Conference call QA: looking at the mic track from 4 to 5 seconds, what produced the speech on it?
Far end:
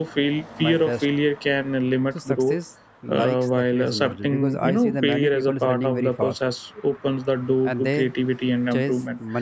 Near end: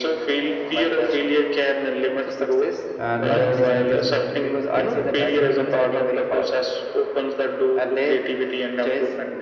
both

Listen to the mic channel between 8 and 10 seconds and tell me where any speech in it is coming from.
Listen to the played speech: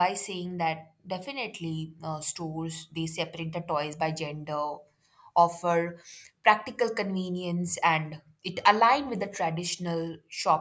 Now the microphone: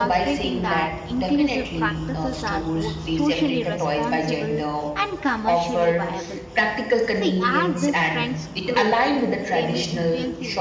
both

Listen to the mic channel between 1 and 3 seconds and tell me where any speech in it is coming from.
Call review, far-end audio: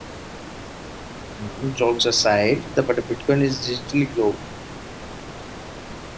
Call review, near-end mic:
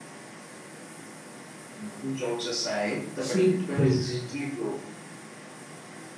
echo only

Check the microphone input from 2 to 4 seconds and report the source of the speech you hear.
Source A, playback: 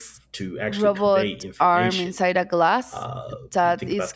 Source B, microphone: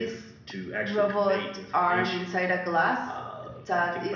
echo only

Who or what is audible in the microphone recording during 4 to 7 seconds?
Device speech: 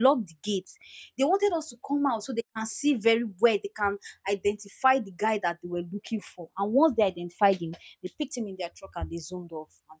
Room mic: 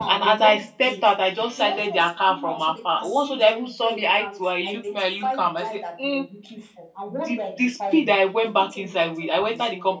both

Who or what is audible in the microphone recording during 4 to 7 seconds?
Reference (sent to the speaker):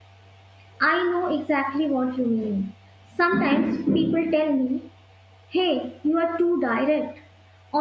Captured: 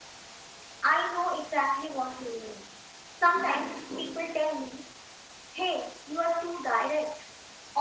echo only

